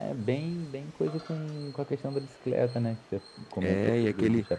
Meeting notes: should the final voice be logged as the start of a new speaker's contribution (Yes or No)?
Yes